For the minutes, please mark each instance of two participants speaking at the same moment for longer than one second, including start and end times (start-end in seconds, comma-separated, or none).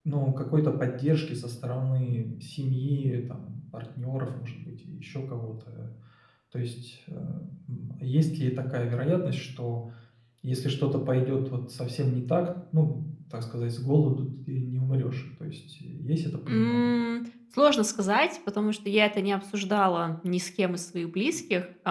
none